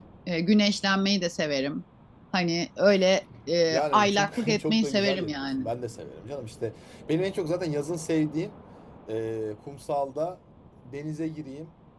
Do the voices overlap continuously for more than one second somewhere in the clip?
Yes, from 3.7 s

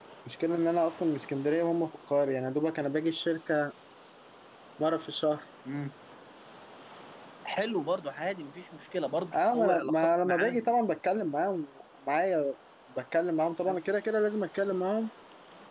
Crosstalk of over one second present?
Yes, from 9.3 s

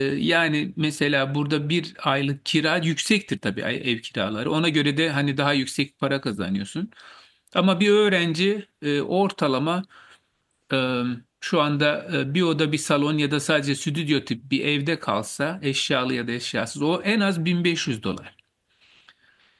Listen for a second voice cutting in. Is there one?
No

